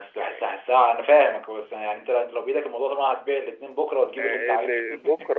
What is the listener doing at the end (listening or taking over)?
taking over